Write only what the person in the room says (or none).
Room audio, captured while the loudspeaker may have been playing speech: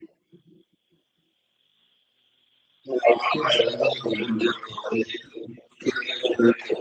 quebrando tudo.